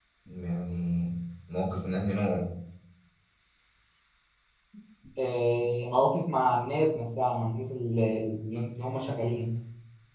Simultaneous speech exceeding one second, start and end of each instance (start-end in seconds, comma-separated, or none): none